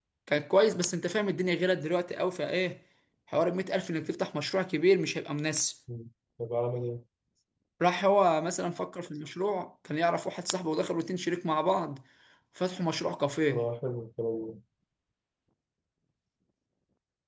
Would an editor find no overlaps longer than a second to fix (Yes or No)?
Yes